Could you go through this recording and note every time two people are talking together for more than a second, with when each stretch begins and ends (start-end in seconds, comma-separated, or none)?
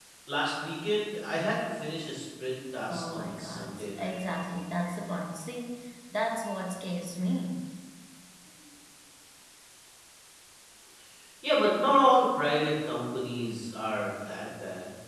2.9-4.2